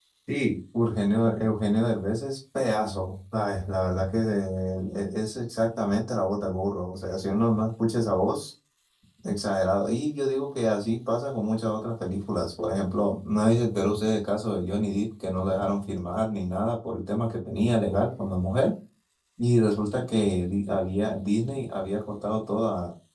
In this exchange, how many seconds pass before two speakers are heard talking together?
none

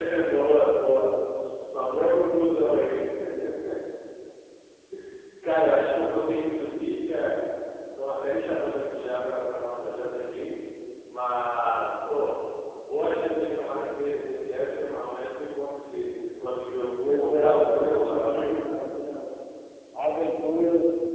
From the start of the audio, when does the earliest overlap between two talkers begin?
17.0 s

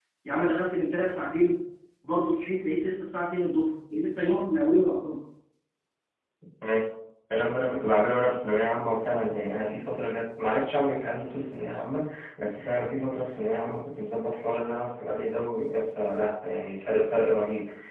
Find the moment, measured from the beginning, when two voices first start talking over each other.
none

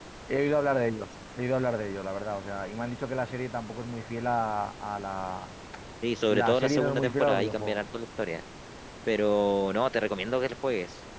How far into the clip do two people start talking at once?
6.3 s

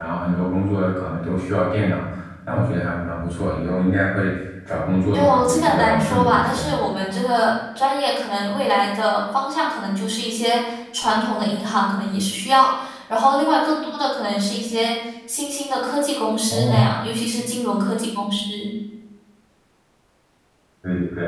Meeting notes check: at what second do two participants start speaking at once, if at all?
5.1 s

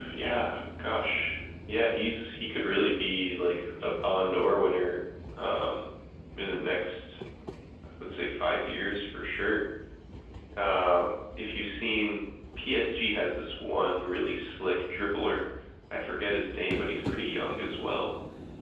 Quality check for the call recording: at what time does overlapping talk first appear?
none

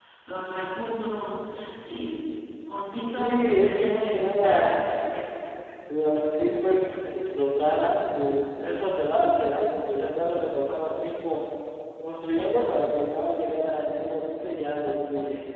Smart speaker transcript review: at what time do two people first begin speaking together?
3.1 s

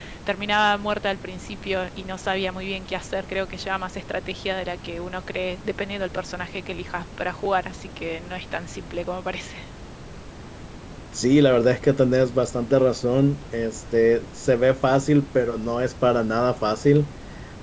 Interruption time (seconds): none

